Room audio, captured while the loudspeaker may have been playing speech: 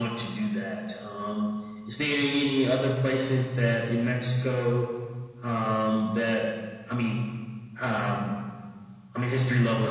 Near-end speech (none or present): none